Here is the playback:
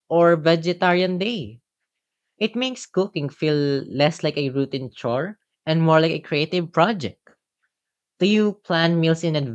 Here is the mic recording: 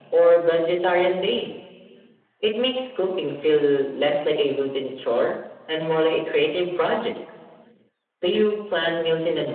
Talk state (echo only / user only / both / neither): echo only